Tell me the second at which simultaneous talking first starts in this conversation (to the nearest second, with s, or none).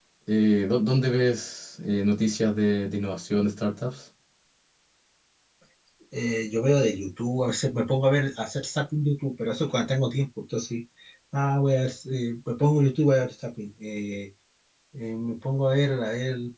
none